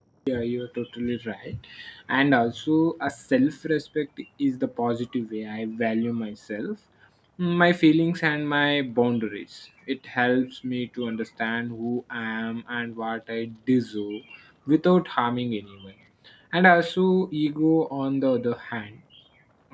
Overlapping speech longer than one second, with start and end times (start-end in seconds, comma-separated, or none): none